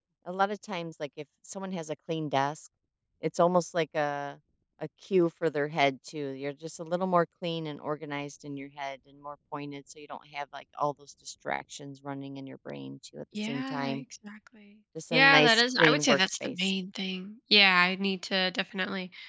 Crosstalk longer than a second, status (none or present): present